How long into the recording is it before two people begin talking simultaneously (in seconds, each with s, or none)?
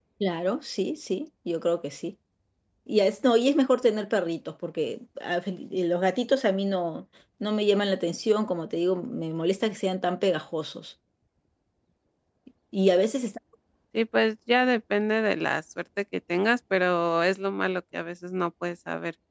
none